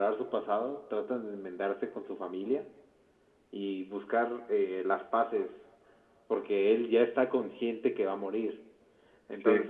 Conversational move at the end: listening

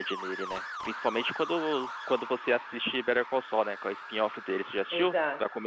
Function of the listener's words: taking over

